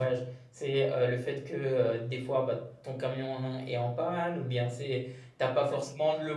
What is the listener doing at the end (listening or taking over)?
listening